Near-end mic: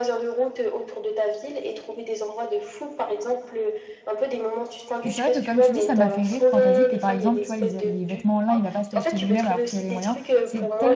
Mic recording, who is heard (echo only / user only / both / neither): both